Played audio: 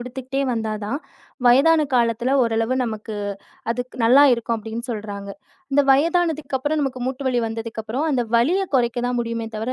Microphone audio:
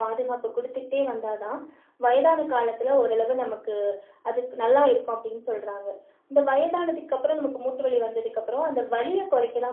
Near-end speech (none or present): none